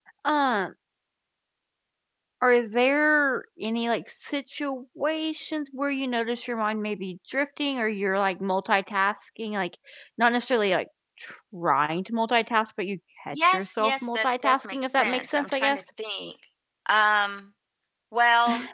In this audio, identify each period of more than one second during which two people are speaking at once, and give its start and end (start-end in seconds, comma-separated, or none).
13.3-15.8